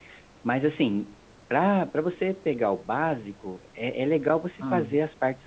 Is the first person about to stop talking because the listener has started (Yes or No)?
No